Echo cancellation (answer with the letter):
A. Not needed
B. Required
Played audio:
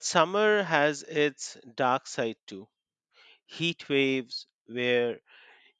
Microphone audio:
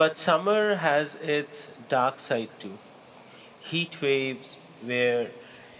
B